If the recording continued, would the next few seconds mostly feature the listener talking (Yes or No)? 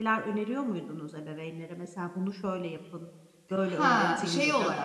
Yes